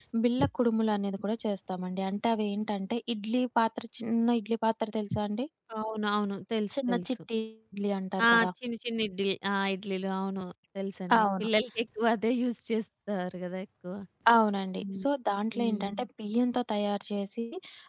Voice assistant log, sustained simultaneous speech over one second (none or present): none